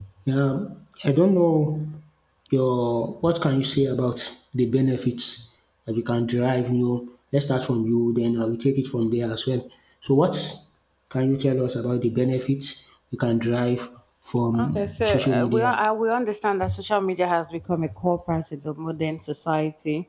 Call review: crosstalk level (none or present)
present